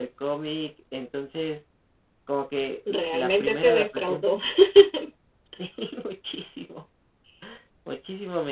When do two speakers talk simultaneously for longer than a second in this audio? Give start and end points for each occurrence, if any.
2.9-4.2

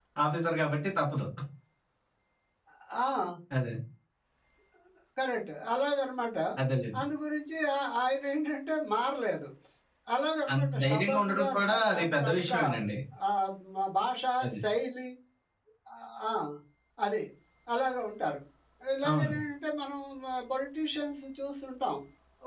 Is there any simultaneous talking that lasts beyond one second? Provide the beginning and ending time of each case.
10.5-12.6

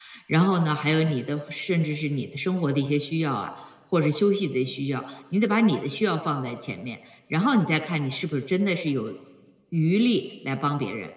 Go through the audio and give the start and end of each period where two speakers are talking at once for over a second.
none

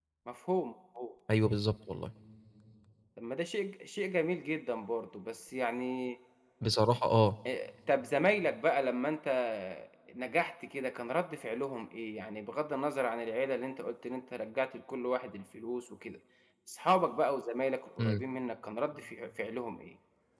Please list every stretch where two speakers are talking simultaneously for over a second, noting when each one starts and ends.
none

